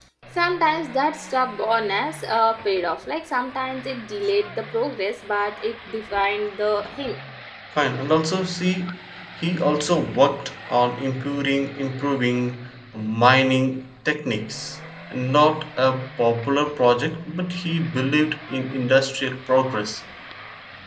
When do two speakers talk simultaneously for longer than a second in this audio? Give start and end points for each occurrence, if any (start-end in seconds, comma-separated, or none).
none